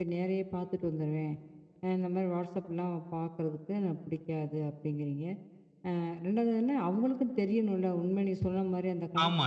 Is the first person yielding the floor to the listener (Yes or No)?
Yes